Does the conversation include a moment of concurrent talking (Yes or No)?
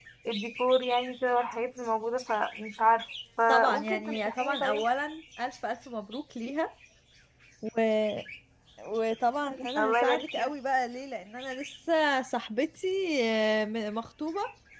Yes